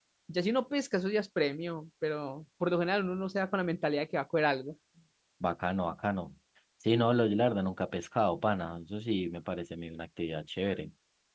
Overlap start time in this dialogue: none

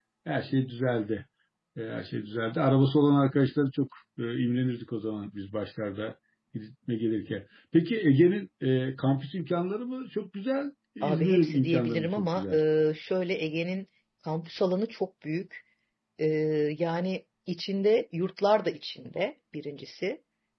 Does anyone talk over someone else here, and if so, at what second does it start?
11.0 s

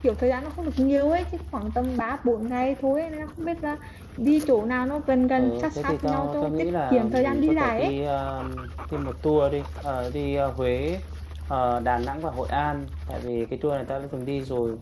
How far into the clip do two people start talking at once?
5.4 s

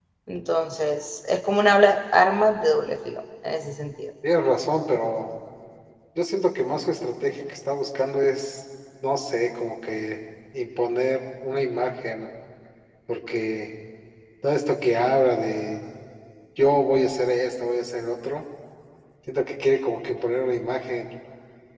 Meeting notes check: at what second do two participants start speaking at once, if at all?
none

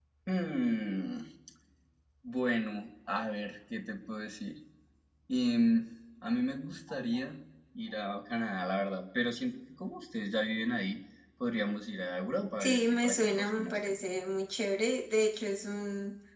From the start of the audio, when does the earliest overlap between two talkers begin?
12.6 s

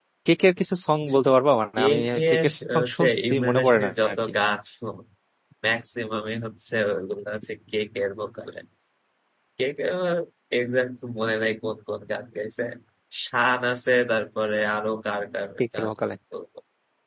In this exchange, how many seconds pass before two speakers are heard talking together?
1.8 s

